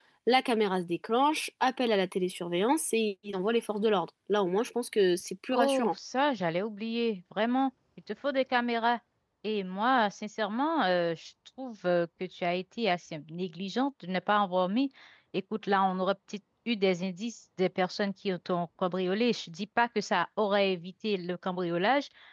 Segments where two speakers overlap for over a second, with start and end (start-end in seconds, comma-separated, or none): none